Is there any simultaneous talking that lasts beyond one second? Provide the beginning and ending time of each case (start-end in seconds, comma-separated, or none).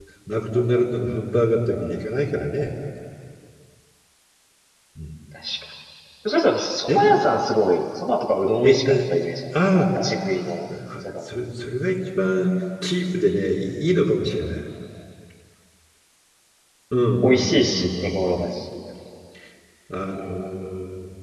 17.2-18.4